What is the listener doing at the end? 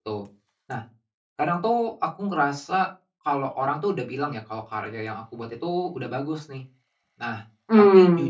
listening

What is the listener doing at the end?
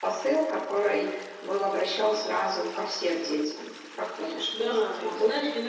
taking over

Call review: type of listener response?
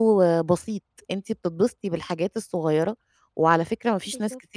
listening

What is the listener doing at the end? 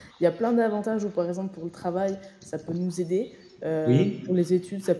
listening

